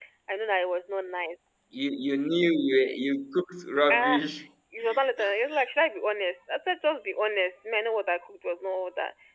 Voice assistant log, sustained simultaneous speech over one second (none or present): none